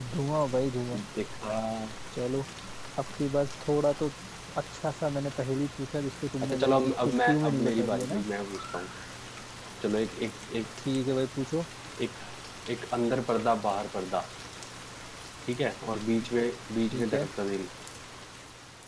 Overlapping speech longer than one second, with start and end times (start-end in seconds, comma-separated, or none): 6.4-8.2